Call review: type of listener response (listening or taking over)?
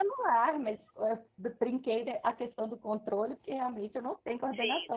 taking over